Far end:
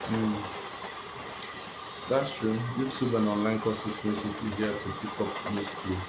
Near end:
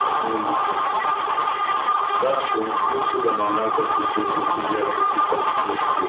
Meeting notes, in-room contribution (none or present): none